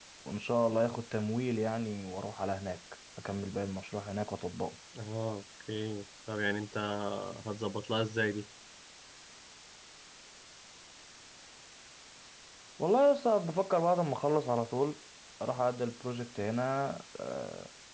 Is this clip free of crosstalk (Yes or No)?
Yes